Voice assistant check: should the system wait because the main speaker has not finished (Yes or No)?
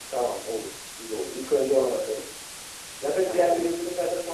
Yes